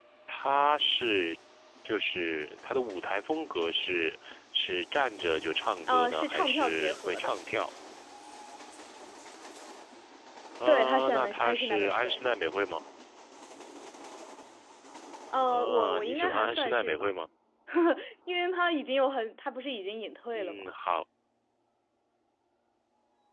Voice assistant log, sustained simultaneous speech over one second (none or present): present